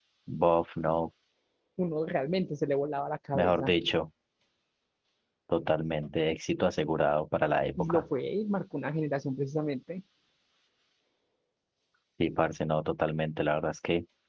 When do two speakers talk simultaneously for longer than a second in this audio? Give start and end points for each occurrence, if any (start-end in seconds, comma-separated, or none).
none